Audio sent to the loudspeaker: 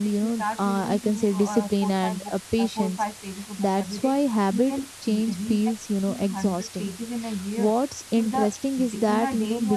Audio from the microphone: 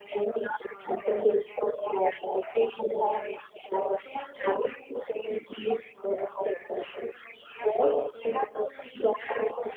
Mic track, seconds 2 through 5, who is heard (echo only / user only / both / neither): echo only